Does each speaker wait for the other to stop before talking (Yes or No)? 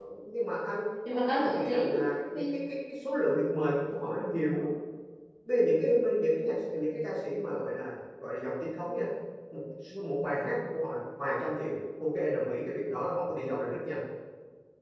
No